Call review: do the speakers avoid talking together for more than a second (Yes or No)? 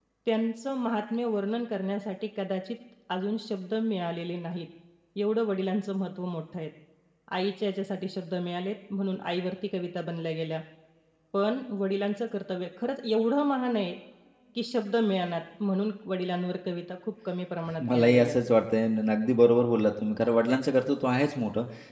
Yes